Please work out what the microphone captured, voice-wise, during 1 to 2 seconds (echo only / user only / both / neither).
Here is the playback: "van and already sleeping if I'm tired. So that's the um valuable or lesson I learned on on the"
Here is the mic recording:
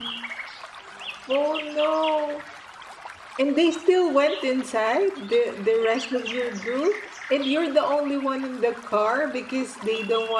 user only